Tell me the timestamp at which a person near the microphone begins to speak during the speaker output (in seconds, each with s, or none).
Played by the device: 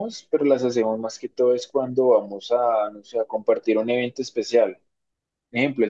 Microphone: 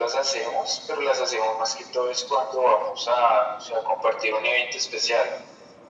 none